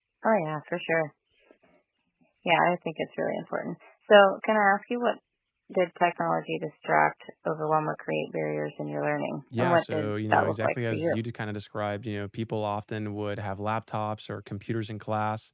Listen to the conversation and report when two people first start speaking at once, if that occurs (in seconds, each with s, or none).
9.5 s